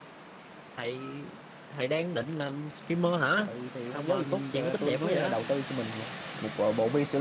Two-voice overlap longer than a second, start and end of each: 3.9-5.3

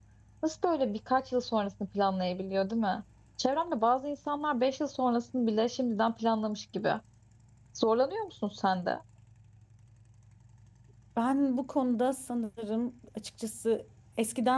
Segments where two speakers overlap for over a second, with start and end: none

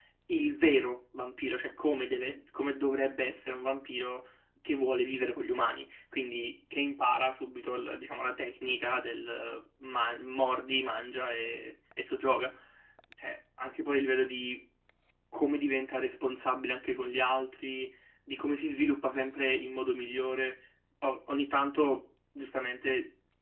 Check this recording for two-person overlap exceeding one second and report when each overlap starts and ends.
none

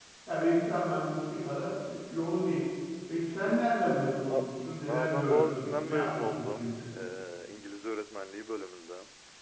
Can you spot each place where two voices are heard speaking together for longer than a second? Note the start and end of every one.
4.9-6.7

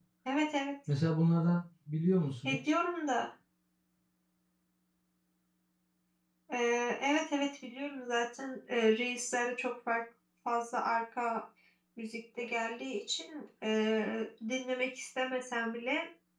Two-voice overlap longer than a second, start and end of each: none

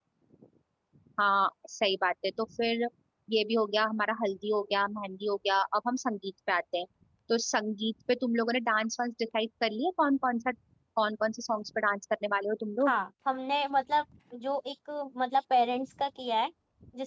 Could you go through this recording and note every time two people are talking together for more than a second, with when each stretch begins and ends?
none

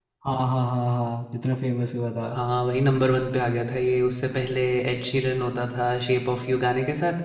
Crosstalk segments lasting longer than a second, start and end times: none

